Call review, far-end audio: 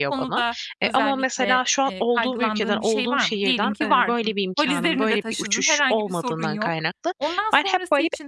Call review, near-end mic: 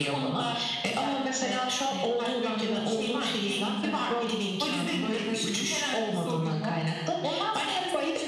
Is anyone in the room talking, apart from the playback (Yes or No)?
No